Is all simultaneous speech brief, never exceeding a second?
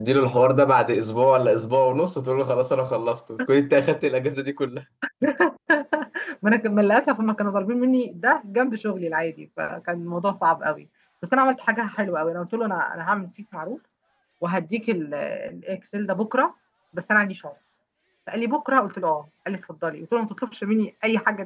Yes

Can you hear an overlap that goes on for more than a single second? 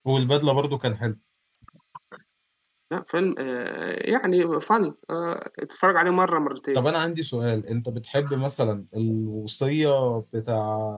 No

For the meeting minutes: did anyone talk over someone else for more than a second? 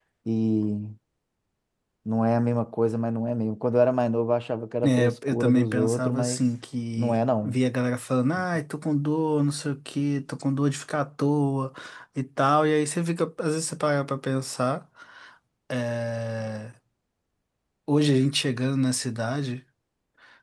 Yes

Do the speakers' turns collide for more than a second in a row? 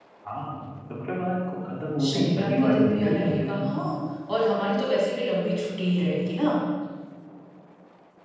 Yes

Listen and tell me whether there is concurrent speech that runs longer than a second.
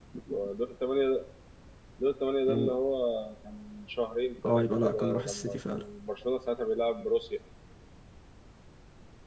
Yes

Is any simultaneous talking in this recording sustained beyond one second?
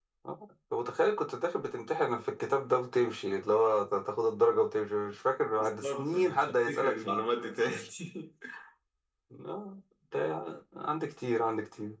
Yes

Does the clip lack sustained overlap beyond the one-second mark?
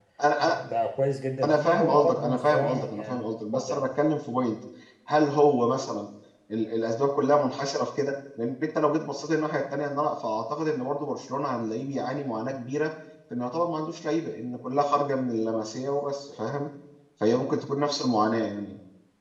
No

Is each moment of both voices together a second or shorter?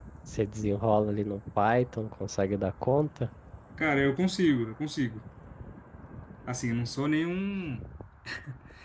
Yes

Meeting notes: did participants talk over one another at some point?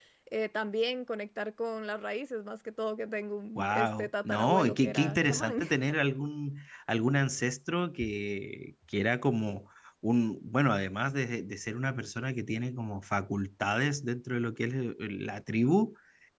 Yes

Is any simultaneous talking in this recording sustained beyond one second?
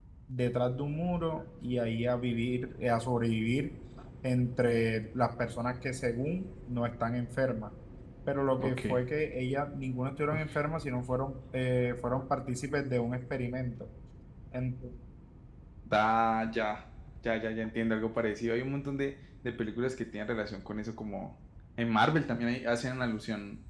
No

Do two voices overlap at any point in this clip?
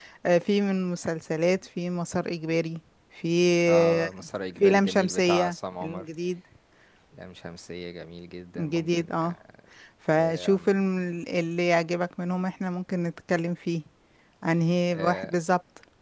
Yes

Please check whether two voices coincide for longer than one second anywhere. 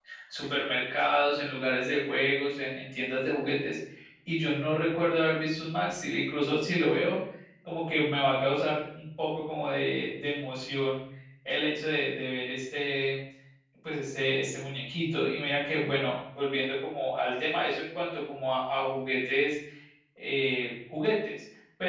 No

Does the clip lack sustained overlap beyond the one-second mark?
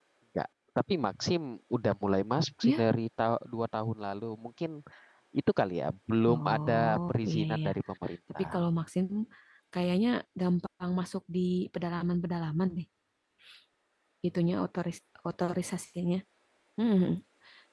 No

